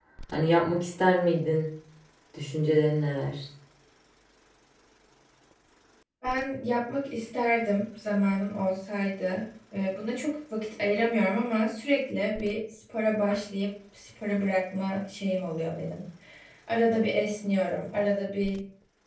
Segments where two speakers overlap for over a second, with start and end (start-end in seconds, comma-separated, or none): none